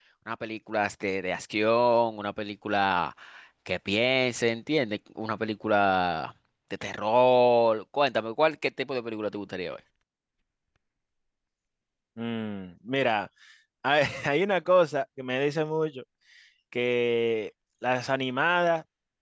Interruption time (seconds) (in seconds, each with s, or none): none